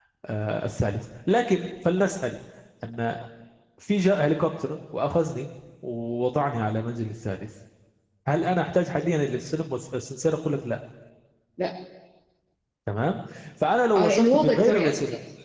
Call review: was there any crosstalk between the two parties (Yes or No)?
Yes